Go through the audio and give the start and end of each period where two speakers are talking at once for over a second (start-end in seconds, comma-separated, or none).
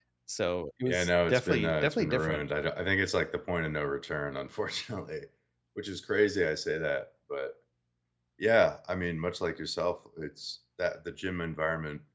0.9-2.4